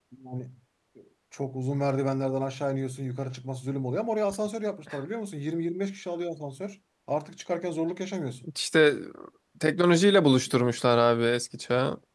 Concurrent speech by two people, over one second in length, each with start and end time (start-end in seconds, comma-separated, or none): none